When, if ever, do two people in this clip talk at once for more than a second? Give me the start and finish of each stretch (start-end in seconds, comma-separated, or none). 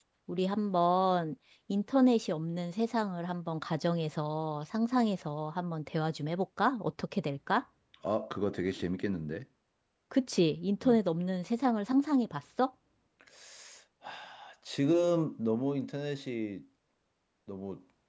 none